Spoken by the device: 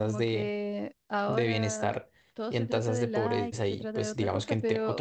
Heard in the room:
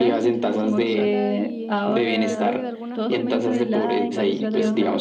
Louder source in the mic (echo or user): echo